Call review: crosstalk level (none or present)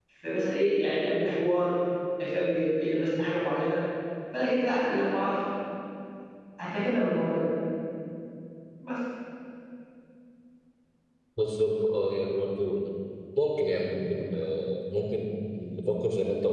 none